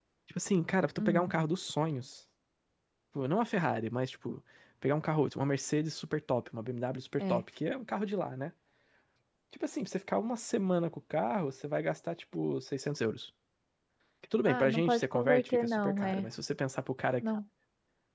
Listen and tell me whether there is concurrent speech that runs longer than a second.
Yes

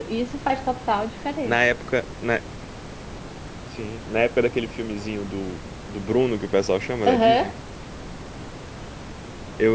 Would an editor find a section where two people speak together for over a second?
No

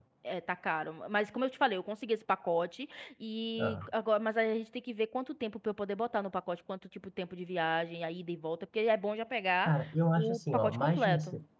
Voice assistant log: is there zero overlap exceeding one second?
No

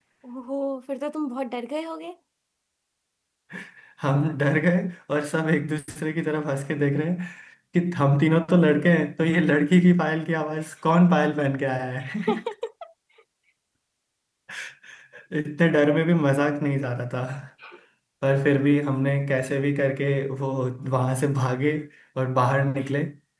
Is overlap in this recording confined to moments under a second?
Yes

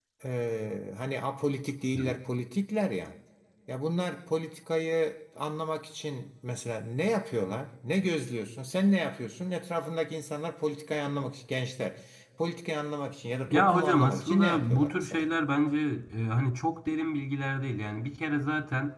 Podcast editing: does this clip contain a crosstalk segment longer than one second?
Yes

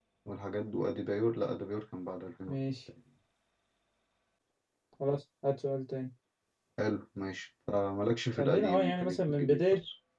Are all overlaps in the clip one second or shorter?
No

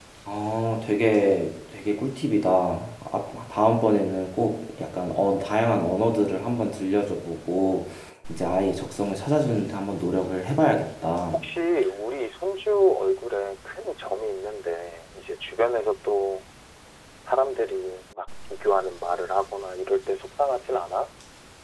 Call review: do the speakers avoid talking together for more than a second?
Yes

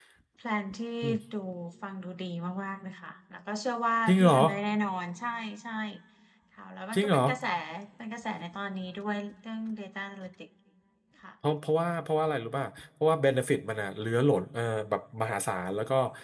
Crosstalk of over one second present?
No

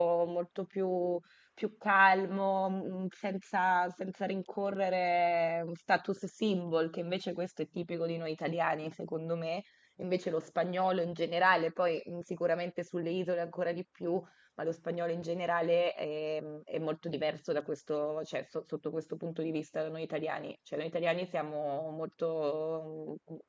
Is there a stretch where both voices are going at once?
No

